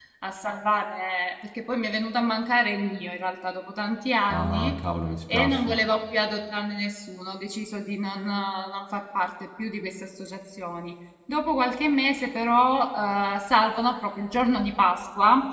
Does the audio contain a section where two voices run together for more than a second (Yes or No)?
No